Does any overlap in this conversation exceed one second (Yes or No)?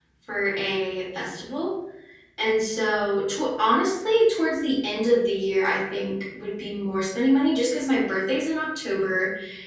No